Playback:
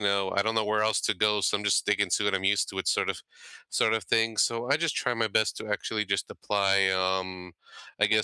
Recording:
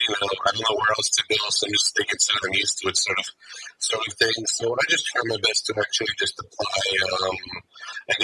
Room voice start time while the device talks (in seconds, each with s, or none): none